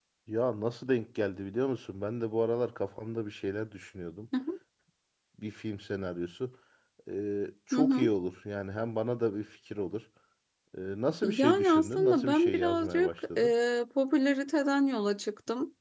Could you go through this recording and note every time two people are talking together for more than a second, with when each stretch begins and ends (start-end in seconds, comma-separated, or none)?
11.2-13.5